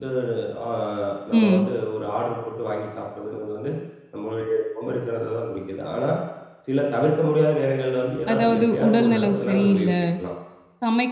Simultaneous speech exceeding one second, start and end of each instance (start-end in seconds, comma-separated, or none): 8.3-9.9